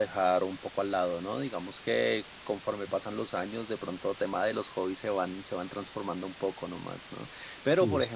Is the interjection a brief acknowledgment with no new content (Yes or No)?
Yes